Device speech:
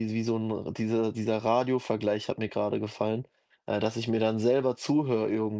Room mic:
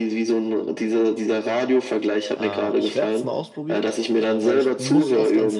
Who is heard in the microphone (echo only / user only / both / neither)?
both